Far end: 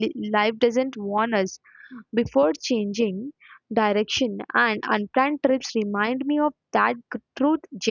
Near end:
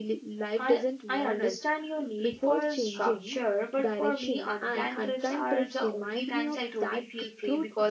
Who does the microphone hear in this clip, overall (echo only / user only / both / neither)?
both